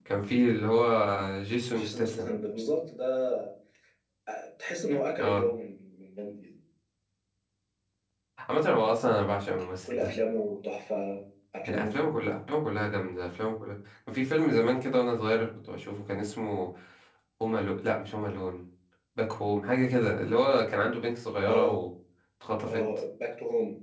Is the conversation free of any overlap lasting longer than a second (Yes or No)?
Yes